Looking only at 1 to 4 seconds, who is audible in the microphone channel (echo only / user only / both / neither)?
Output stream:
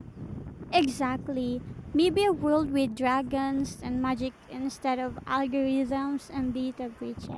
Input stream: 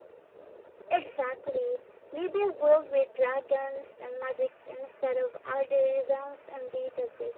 echo only